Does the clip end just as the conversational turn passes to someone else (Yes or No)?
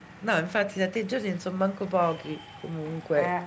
Yes